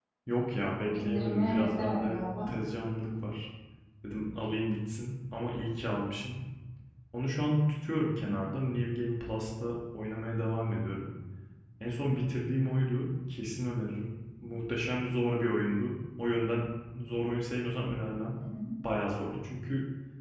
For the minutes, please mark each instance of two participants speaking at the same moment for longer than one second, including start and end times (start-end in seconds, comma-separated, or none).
1.0-2.5